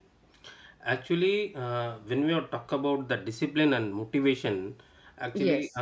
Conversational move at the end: listening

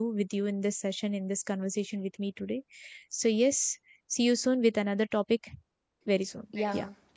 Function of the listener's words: taking over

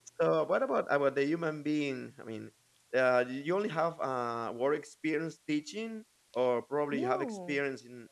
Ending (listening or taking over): listening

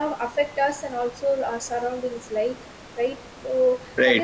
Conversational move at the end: listening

